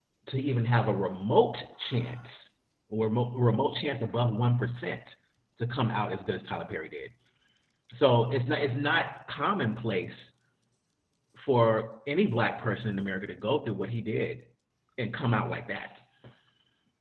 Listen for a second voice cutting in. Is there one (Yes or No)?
No